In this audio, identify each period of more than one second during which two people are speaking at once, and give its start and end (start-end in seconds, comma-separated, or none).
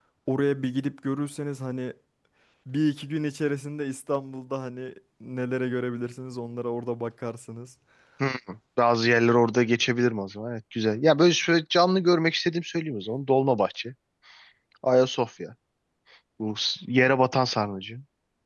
none